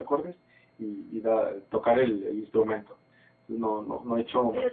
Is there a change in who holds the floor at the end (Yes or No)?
Yes